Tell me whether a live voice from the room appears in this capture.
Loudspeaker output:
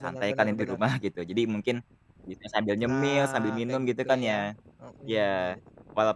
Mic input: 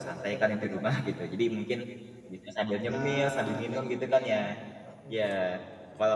No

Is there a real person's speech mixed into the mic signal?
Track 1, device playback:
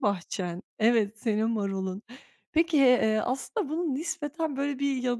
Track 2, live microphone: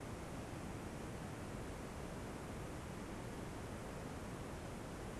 No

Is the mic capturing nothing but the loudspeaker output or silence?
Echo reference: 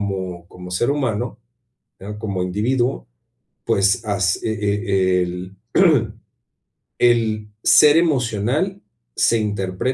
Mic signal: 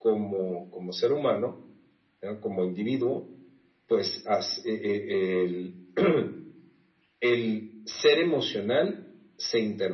Yes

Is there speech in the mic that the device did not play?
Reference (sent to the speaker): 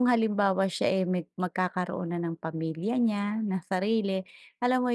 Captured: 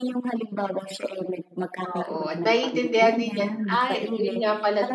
Yes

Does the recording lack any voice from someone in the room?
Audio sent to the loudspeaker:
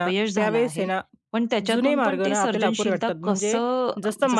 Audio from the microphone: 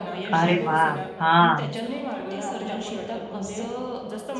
No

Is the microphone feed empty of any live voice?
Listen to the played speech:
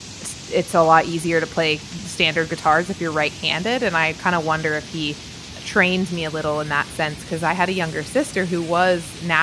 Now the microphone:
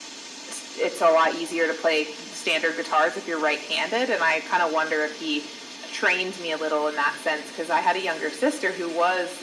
Yes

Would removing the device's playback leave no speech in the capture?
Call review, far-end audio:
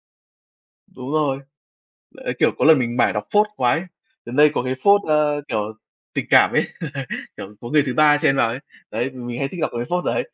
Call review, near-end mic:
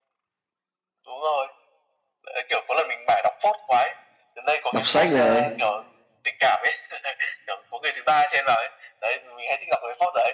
No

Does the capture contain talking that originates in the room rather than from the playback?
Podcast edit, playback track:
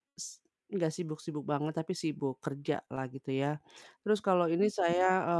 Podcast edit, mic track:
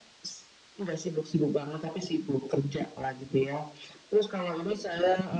No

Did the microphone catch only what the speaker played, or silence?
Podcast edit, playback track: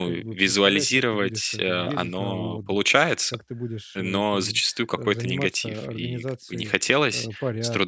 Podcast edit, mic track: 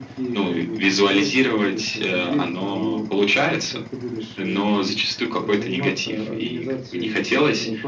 Yes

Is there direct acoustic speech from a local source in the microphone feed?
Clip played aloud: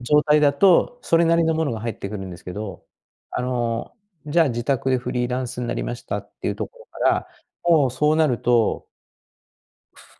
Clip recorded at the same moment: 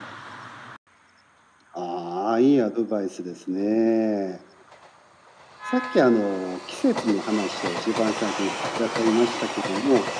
Yes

